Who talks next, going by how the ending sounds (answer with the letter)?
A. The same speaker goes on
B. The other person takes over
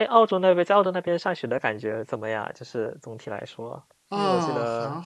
B